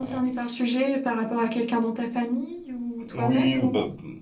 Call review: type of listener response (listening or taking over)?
taking over